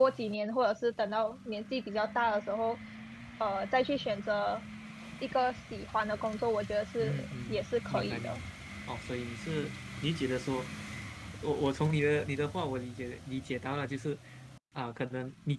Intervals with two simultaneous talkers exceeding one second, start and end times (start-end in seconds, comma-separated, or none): 7.0-8.4